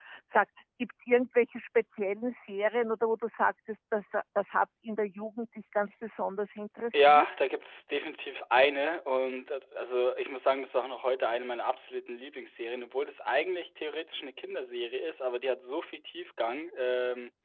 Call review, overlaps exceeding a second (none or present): none